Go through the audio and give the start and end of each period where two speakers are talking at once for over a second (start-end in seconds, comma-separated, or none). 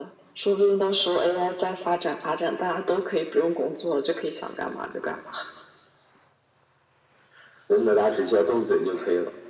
none